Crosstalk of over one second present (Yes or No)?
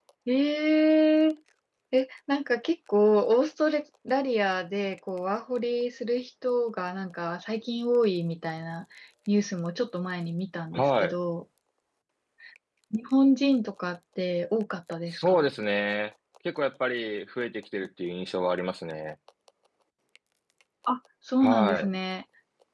No